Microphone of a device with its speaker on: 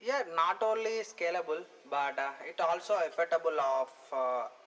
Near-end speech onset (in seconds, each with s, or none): none